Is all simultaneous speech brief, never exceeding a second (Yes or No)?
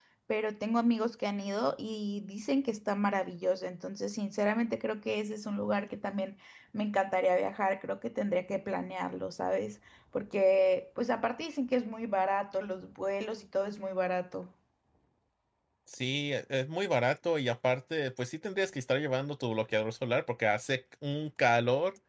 Yes